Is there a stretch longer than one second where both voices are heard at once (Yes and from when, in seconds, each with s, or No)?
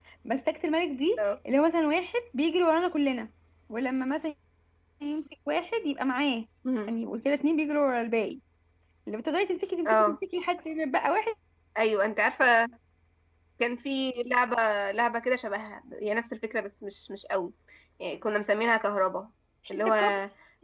No